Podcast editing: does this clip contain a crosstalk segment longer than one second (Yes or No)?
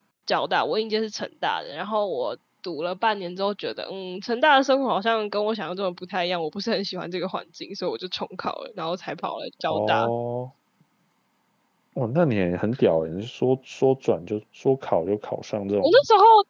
No